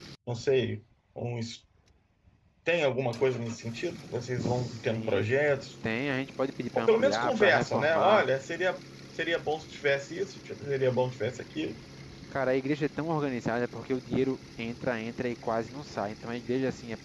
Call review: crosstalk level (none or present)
present